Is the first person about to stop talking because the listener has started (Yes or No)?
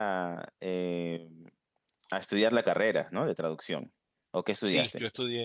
Yes